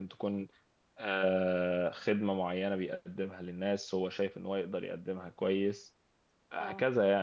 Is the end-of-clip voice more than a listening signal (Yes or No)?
No